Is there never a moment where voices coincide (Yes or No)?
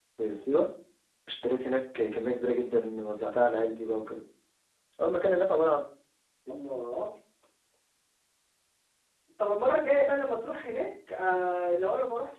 Yes